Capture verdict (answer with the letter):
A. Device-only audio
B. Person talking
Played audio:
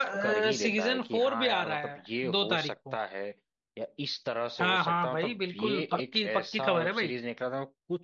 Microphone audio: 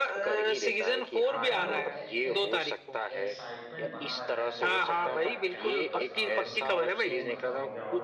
B